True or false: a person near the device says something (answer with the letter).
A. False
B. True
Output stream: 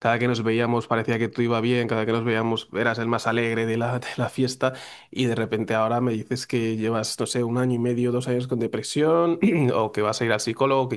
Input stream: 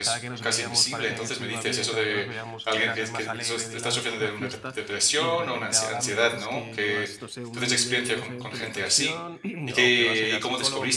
B